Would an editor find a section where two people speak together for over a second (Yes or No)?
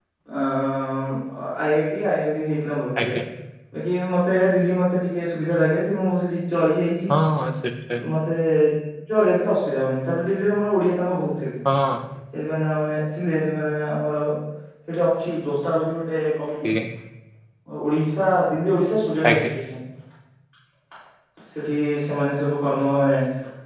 No